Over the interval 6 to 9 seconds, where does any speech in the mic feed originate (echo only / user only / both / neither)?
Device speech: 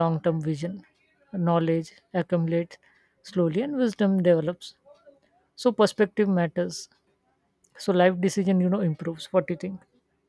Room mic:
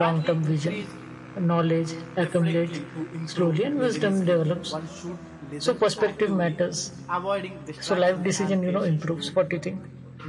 both